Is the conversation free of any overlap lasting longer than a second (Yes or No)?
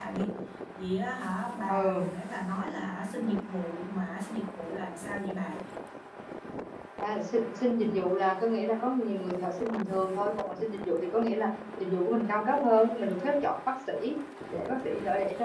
Yes